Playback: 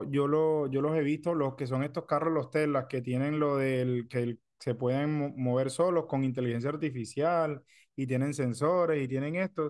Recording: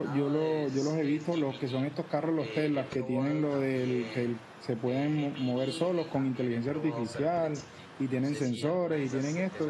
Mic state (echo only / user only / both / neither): both